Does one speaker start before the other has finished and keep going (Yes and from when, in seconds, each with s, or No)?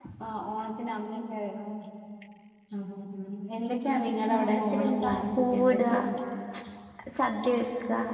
Yes, from 4.4 s